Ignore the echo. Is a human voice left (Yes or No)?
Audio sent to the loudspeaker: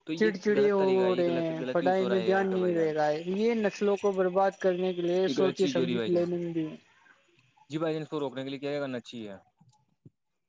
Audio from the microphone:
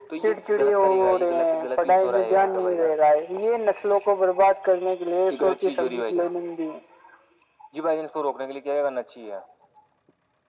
No